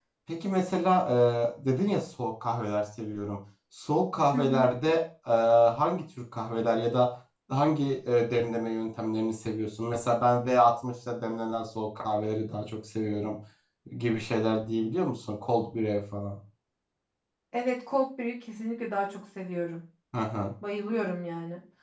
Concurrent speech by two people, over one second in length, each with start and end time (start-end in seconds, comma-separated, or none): none